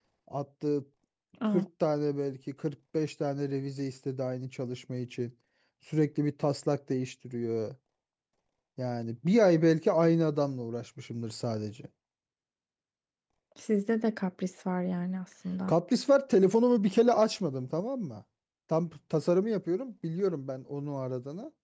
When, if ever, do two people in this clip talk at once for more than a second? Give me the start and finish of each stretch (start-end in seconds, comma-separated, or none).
none